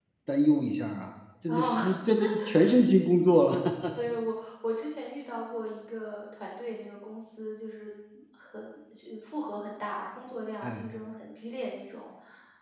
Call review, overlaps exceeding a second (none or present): none